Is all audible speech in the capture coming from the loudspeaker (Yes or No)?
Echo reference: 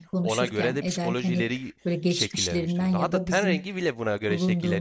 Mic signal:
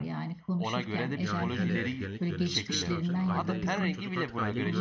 No